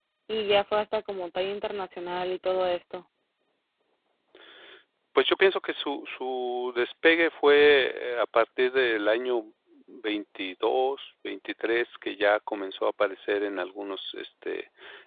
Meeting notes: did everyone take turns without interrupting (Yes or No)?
Yes